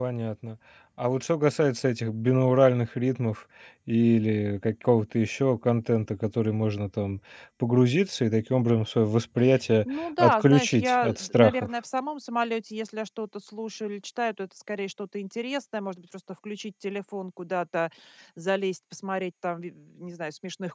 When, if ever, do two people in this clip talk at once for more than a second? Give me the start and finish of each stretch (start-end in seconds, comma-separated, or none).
9.9-11.7